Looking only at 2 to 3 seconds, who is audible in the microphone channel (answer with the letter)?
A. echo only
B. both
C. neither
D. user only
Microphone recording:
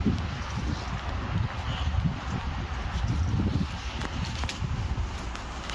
C